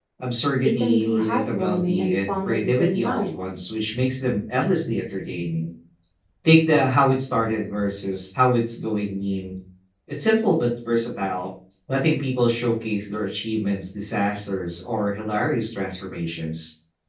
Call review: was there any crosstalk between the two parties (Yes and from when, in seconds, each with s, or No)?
Yes, from 0.6 s